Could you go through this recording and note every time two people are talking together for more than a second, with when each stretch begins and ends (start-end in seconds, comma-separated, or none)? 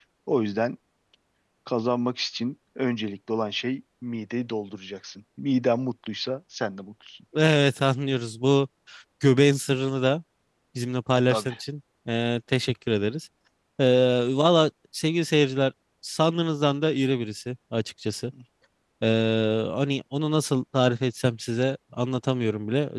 none